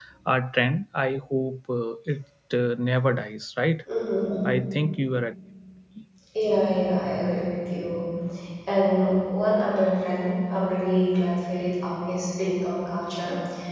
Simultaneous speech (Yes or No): No